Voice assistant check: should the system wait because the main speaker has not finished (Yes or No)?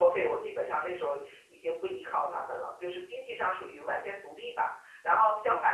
Yes